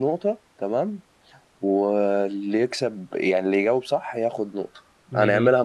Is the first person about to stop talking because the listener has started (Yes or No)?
No